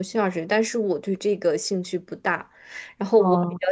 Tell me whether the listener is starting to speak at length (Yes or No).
No